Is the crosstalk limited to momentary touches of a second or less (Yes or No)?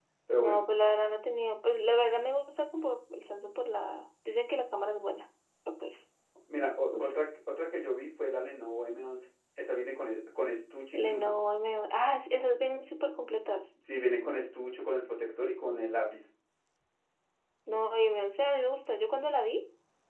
Yes